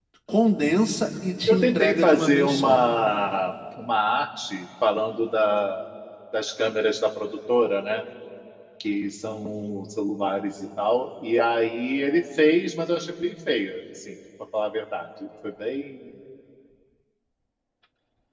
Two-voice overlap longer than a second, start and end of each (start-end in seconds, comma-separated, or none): 1.5-2.8